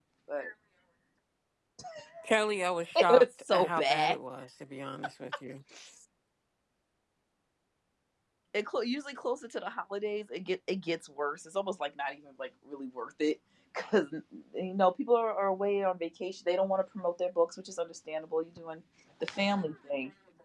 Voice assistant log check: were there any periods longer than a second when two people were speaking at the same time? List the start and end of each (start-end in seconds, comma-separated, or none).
3.0-4.2